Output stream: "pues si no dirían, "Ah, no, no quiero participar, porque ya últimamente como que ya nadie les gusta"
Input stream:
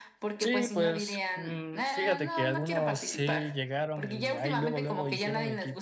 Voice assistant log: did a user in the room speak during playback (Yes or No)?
Yes